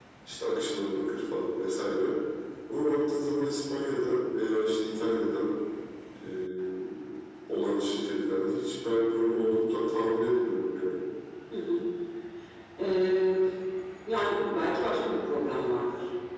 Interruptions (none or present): none